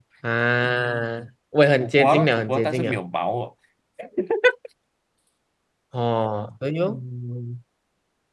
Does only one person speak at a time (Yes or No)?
No